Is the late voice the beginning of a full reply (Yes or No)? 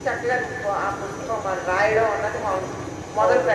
Yes